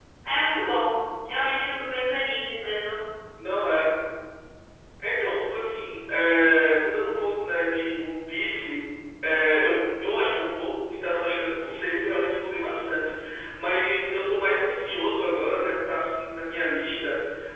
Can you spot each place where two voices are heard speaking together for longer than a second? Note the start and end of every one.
none

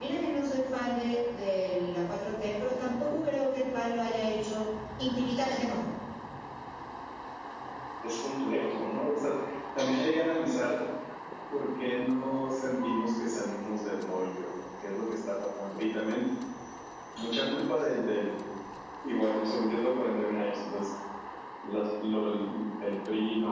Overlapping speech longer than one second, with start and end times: none

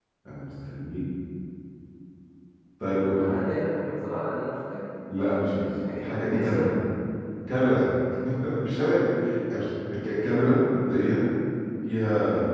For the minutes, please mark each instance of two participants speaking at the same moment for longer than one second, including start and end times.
5.2-6.7

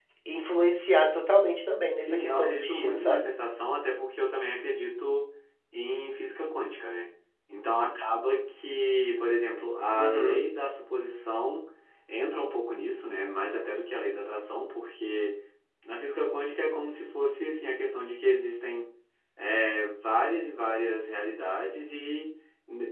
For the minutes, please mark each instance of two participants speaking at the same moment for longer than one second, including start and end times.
2.0-3.3

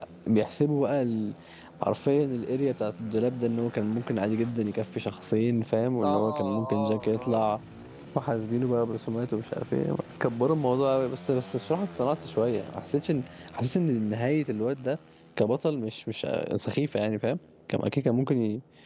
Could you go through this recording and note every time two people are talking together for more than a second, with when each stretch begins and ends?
6.0-7.5

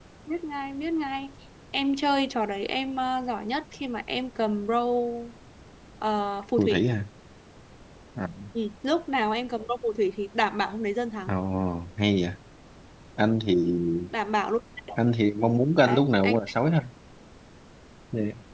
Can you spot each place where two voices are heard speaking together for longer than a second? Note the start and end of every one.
none

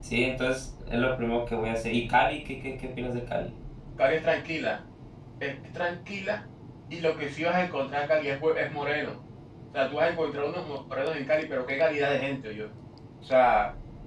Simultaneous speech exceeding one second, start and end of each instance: none

